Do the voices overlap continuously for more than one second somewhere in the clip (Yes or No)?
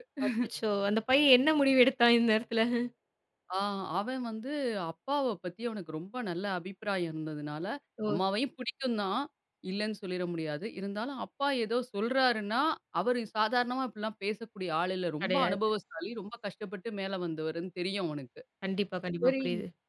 No